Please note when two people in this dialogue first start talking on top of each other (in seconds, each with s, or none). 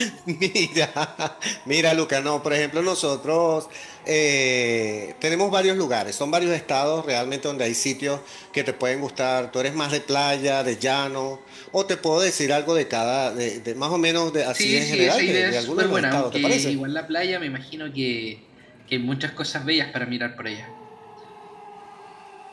14.5 s